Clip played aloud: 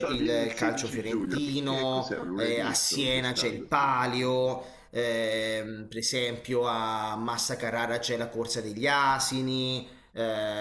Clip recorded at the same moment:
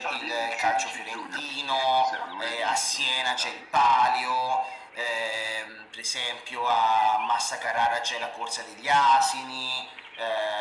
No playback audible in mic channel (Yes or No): No